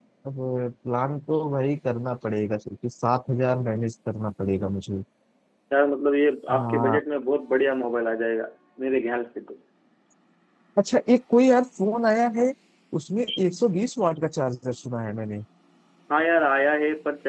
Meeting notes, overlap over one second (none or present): none